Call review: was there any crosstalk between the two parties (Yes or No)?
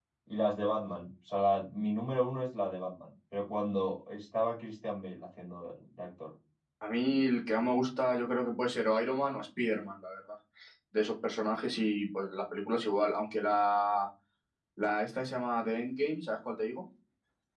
No